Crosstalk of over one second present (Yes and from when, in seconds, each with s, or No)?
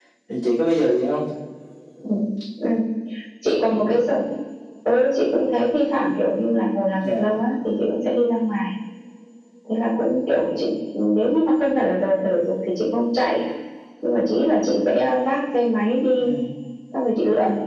No